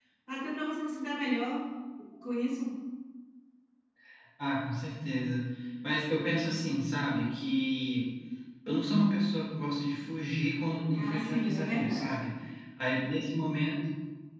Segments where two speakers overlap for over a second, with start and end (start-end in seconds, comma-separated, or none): 10.9-12.2